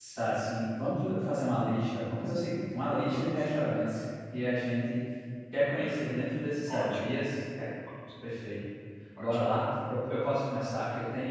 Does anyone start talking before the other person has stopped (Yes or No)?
Yes